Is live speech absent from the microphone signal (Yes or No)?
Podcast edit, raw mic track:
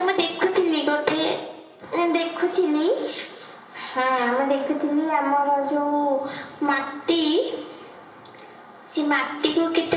Yes